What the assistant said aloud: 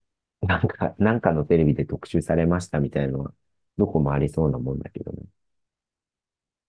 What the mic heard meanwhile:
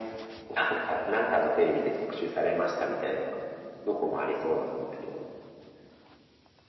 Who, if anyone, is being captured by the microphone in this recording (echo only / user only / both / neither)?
echo only